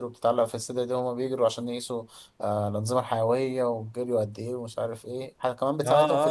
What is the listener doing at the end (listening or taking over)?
taking over